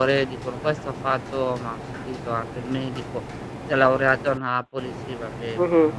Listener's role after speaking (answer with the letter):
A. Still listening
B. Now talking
B